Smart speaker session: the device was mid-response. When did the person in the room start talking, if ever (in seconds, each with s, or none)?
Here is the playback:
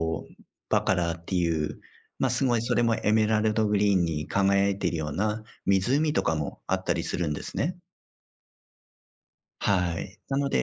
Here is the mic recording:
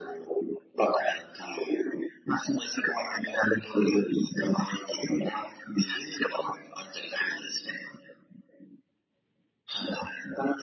none